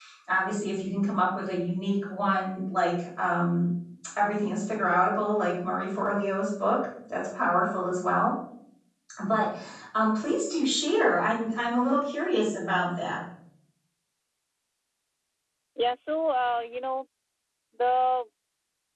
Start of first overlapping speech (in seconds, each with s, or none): none